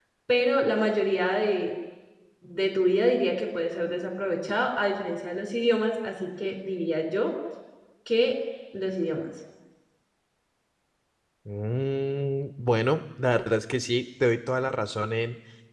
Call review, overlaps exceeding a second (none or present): none